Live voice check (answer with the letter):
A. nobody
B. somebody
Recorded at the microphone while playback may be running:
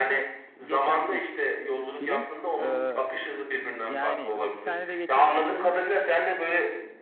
B